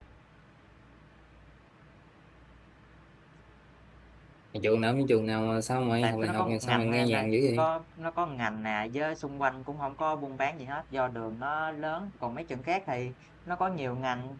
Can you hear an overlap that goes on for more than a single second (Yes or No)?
Yes